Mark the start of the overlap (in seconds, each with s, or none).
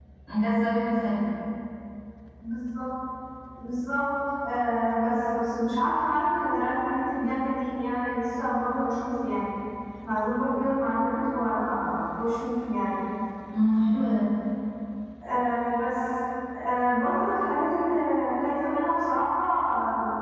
none